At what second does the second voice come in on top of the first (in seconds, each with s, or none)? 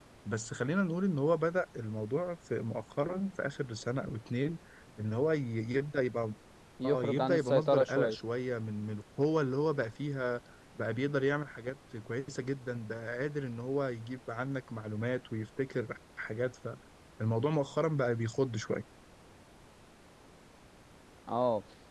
6.8 s